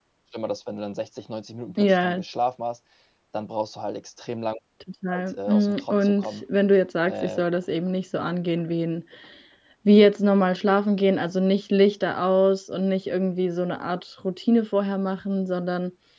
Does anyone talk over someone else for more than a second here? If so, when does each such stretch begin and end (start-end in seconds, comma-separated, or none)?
5.2-6.4